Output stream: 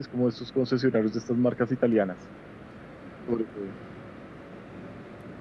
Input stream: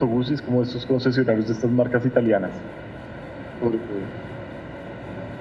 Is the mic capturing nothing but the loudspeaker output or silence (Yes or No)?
Yes